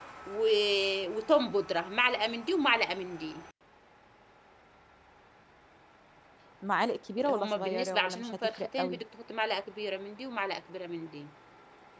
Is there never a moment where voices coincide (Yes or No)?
No